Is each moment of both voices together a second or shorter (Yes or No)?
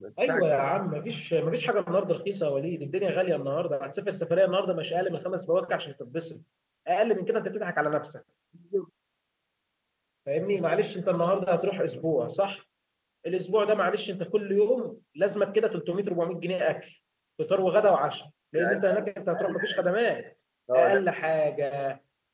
No